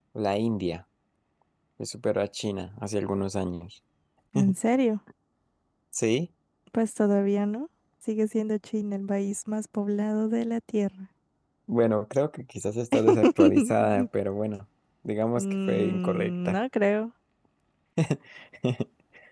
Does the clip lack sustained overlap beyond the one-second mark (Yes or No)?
No